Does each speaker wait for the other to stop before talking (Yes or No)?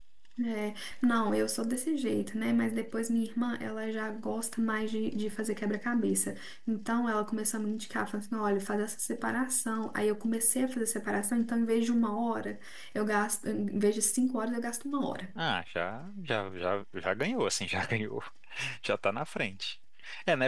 Yes